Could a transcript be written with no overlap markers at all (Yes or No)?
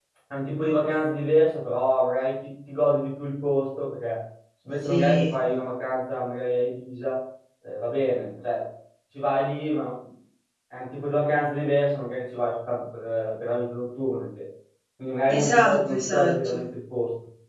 No